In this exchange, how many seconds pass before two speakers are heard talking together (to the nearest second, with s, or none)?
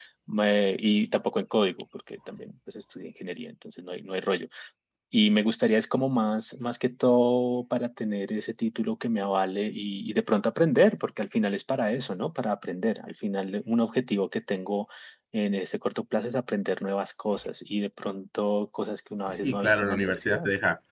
19 s